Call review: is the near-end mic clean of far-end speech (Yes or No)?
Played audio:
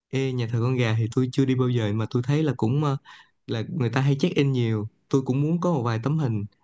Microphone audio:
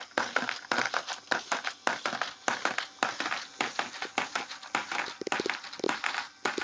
Yes